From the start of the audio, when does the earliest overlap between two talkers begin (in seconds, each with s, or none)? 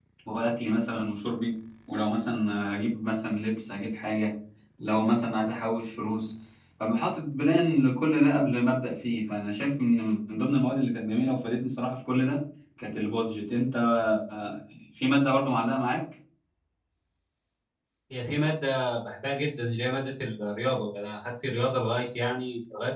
none